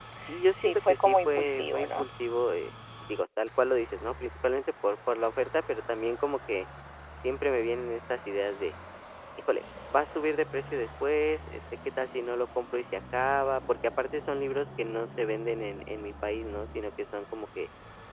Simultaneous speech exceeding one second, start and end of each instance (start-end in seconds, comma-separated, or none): 0.6-2.0